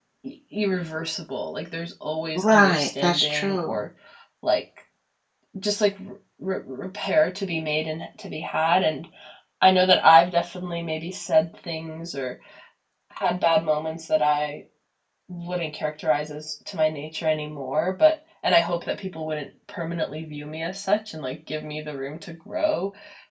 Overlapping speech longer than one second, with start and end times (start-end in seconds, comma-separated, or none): 2.4-3.8